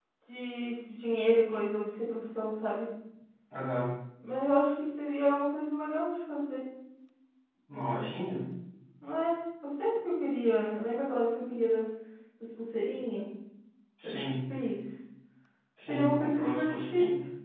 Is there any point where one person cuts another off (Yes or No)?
Yes